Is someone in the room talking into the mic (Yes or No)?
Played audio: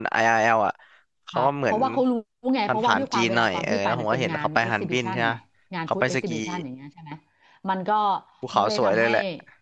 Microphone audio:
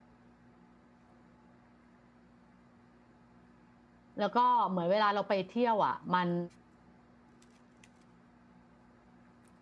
Yes